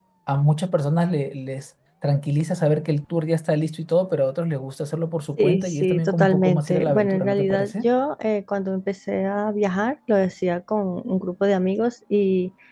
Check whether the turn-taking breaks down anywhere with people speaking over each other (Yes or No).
Yes